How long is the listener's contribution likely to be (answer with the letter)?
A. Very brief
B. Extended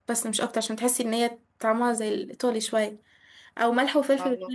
A